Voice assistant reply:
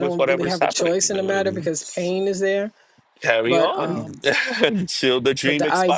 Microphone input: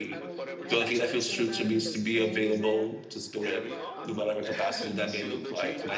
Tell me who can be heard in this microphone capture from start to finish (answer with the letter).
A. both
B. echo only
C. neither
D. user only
A